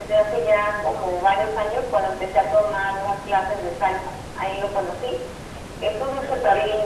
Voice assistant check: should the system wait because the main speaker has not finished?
Yes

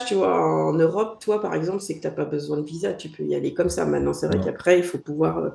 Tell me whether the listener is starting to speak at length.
No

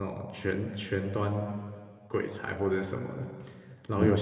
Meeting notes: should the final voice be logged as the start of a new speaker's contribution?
No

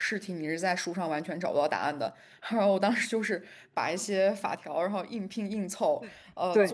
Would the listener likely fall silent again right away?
Yes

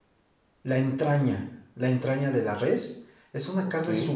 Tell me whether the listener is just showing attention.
Yes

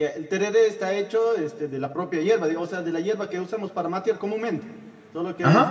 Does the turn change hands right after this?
Yes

